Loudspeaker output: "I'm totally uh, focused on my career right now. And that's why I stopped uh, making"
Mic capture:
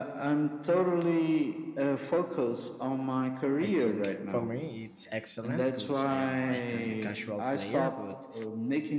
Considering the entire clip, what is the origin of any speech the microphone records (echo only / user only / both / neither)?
both